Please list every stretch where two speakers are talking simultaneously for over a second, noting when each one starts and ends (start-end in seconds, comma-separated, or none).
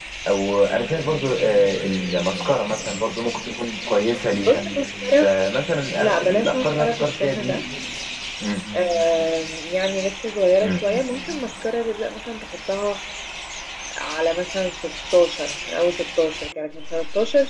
6.0-7.6